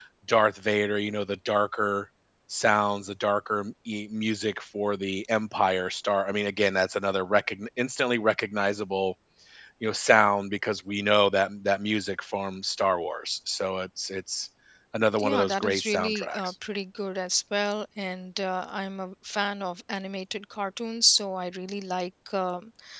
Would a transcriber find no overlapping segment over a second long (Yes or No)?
No